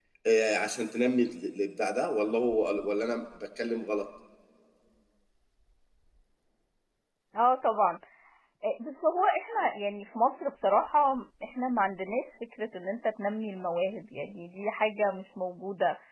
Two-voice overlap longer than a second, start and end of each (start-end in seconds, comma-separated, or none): none